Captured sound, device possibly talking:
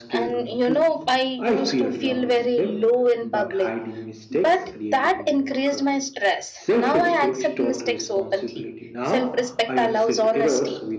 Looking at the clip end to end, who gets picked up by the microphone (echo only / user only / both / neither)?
both